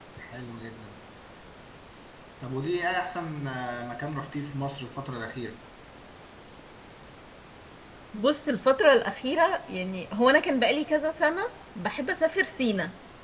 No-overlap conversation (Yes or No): Yes